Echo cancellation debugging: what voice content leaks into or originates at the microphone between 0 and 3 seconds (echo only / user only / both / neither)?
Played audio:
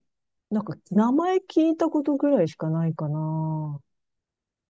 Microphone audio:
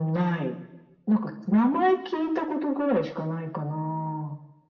echo only